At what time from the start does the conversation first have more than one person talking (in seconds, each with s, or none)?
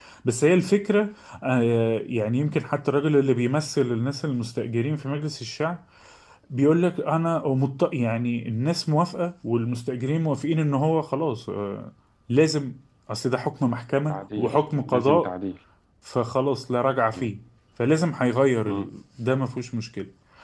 14.1 s